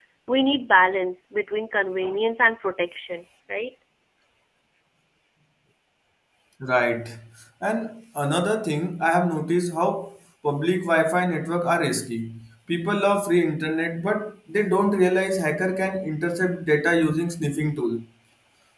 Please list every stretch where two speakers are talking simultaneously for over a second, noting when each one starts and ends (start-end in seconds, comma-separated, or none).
none